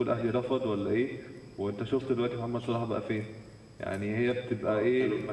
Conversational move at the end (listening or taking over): taking over